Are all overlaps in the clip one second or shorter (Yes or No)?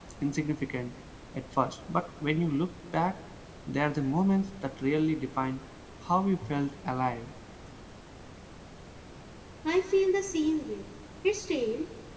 Yes